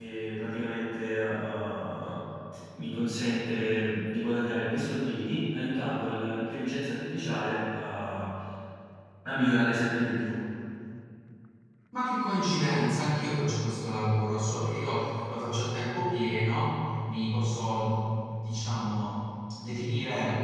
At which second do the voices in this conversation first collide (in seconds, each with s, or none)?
none